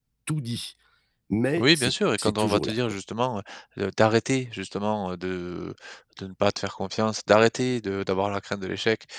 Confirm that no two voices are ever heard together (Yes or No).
No